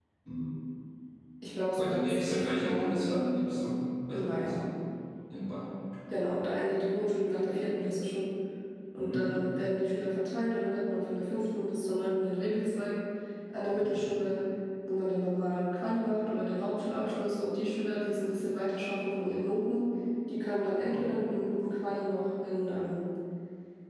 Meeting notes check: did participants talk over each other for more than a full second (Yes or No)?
Yes